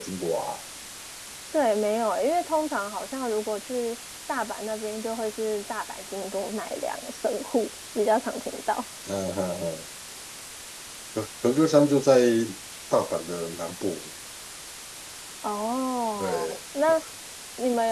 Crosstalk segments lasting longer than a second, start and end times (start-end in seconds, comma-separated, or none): none